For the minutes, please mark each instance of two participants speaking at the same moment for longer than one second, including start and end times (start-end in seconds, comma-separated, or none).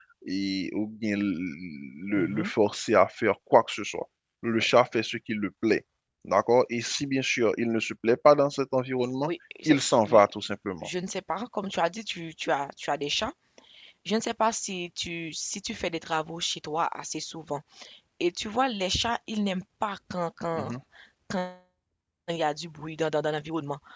none